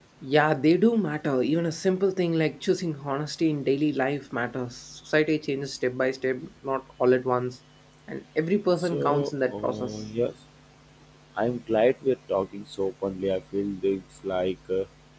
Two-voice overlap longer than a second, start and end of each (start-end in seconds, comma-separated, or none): 8.8-10.0